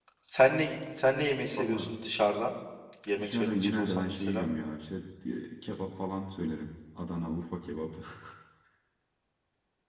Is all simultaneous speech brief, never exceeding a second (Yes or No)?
No